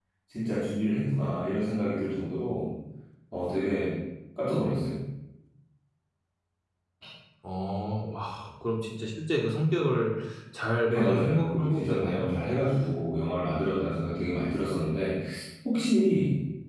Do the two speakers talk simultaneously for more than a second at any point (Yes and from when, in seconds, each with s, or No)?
Yes, from 10.9 s